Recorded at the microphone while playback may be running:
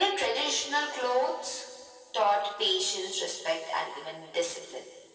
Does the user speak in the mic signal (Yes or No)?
No